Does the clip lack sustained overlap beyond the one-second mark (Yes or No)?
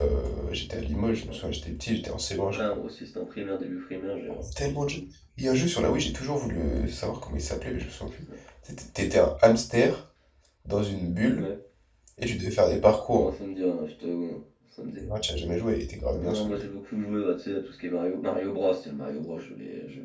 Yes